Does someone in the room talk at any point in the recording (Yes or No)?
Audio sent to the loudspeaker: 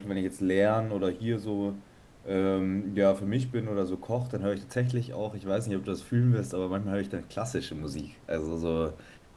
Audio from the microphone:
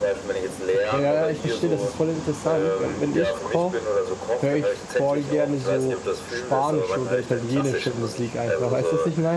Yes